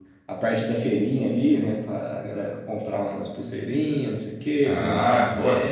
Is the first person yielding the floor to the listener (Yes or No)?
Yes